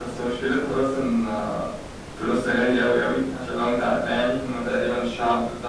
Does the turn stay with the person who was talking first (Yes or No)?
Yes